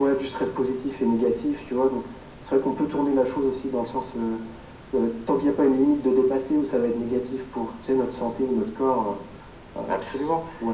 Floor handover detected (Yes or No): Yes